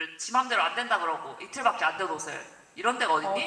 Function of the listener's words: taking over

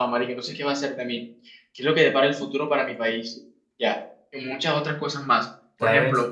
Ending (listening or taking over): listening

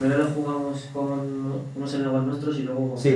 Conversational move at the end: taking over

